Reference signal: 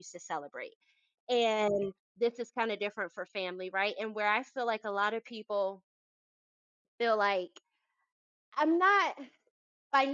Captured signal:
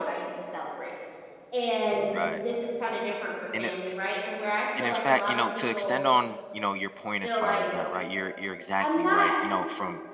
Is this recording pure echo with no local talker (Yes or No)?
No